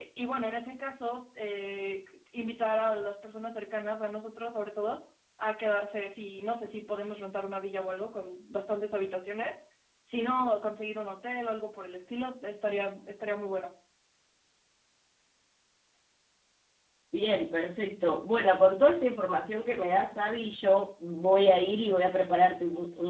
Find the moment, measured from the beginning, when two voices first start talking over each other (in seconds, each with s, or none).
none